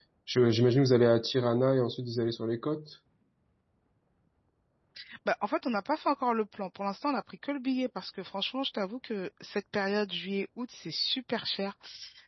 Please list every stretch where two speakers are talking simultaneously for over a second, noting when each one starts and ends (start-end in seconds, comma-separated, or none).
none